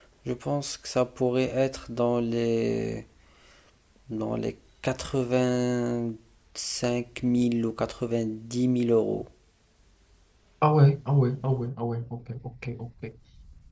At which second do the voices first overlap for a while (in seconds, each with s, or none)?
none